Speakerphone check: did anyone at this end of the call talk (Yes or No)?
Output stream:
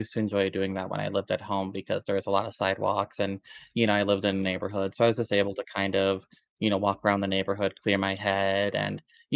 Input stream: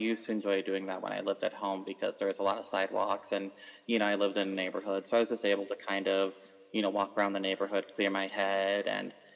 No